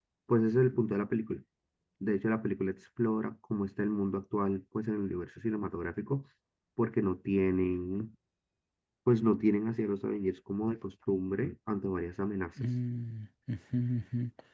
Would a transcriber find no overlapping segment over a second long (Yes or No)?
Yes